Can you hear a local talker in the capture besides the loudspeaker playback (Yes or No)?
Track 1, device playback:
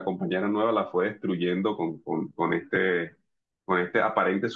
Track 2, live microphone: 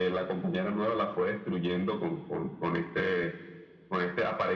No